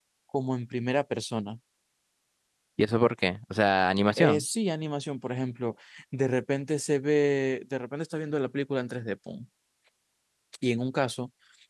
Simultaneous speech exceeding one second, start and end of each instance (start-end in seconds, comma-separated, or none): none